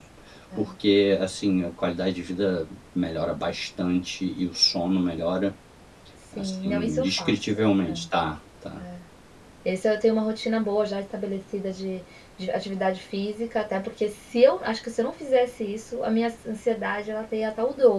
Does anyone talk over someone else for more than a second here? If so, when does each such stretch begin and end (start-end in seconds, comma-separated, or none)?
6.3-7.6